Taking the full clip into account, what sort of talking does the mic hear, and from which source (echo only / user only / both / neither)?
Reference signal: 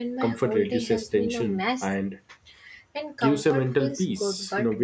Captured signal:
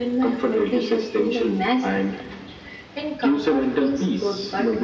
echo only